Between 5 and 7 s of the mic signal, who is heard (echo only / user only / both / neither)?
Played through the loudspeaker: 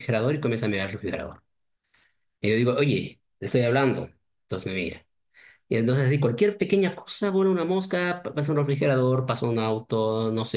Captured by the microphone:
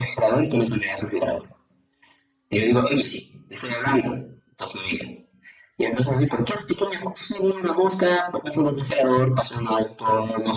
echo only